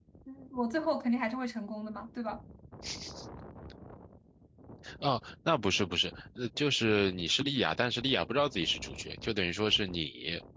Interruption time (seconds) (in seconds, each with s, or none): none